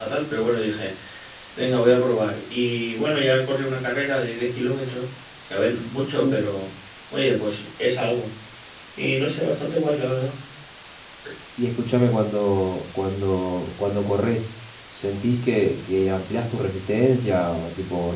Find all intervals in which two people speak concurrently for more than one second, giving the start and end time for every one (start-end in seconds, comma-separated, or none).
none